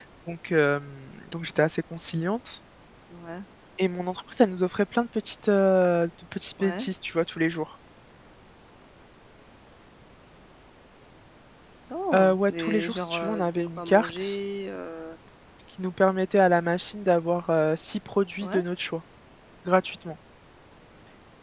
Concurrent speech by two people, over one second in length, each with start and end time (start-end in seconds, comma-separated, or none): 12.1-14.4